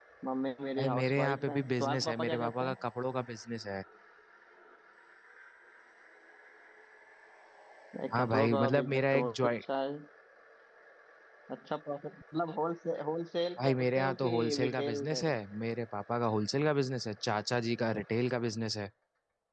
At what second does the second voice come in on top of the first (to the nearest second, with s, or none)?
1 s